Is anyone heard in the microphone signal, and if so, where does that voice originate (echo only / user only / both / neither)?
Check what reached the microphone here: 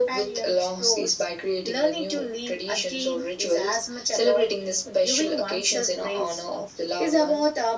echo only